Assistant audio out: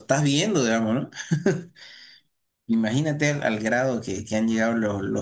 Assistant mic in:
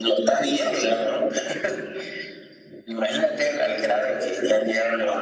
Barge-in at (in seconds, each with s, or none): none